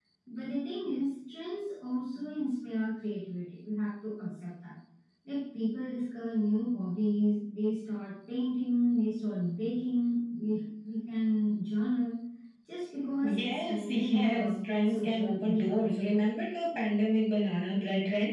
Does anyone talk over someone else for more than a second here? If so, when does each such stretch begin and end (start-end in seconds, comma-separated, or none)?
13.2-15.8